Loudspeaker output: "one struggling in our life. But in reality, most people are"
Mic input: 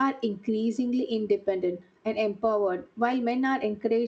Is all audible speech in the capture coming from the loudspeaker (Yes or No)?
No